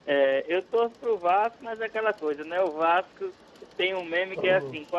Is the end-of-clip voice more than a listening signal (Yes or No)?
No